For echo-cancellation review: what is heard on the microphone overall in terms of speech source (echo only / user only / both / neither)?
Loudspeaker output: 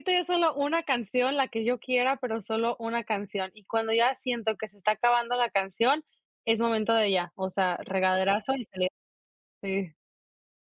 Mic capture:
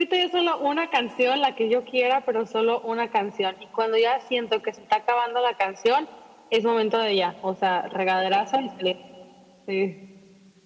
echo only